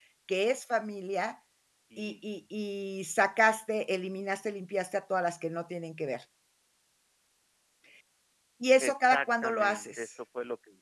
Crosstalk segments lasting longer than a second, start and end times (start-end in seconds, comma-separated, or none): 8.8-10.1